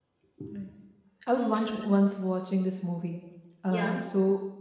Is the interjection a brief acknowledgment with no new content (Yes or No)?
Yes